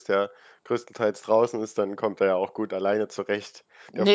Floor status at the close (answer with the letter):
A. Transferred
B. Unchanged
A